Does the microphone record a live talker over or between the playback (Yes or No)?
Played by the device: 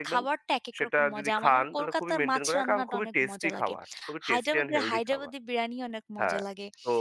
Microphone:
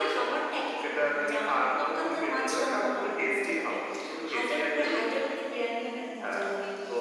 No